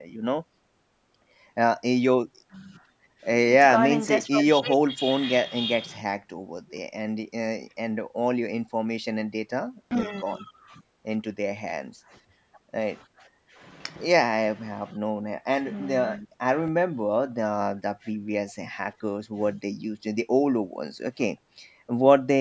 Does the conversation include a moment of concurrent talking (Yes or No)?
Yes